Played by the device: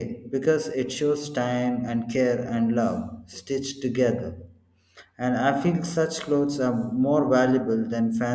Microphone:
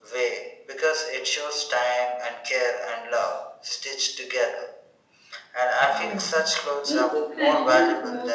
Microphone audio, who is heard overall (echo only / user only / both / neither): both